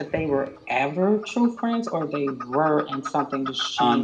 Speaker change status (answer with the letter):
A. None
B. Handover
B